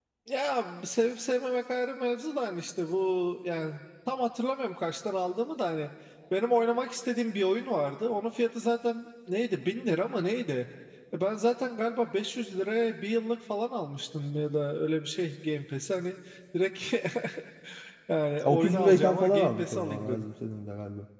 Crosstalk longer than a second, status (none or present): present